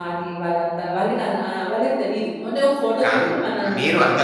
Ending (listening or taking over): taking over